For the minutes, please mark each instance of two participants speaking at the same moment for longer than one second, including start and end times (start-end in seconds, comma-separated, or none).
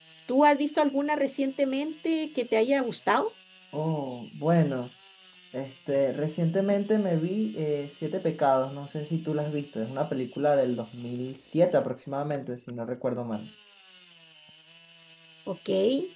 none